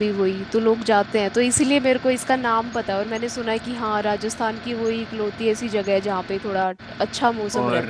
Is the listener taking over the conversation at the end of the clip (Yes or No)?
Yes